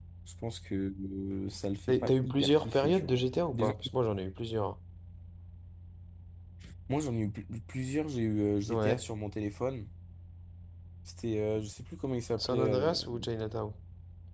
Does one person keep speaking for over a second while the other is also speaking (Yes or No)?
Yes